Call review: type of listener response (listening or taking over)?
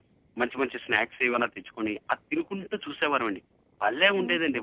taking over